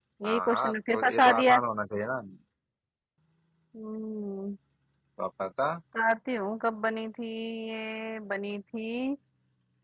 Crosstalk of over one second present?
Yes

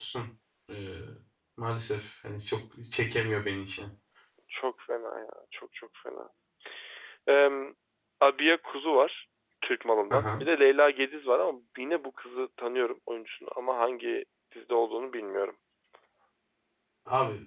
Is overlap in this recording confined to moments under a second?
Yes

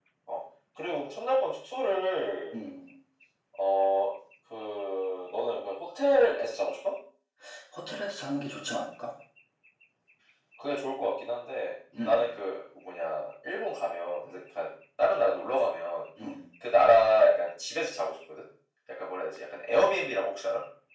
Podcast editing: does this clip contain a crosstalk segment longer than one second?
No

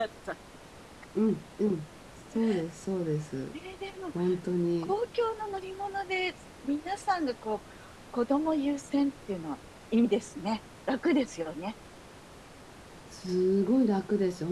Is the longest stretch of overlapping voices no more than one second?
Yes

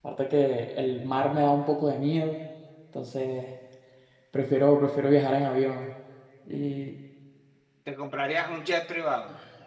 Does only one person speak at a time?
Yes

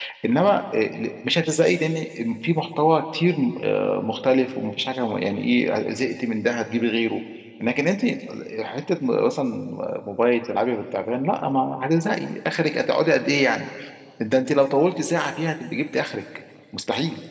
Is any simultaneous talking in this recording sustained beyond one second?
No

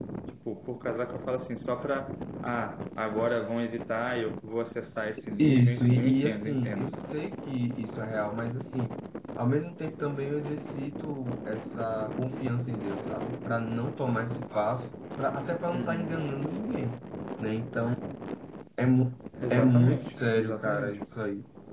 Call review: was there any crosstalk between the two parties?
Yes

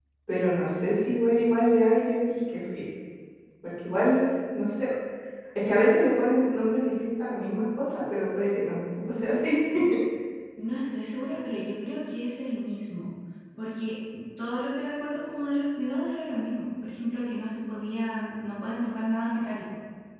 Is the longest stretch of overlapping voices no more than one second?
Yes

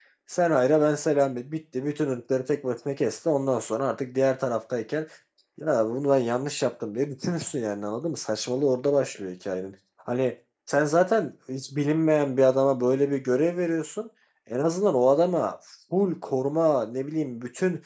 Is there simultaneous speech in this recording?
No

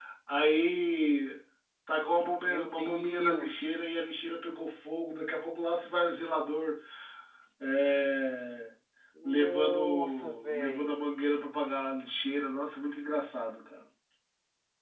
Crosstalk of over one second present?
Yes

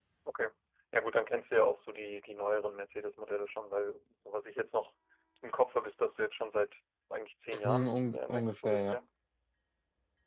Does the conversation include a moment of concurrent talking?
Yes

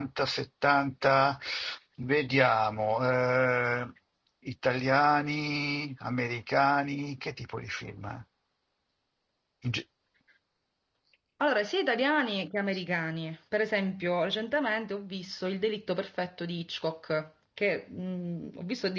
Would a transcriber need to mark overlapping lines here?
No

